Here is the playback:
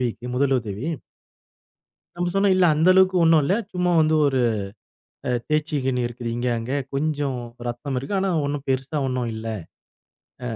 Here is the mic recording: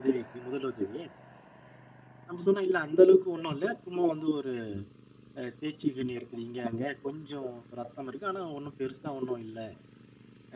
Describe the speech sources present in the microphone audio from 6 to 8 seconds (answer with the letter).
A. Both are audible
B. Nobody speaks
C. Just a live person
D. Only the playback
D